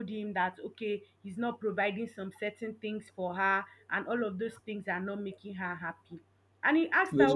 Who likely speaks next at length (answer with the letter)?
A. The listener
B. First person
B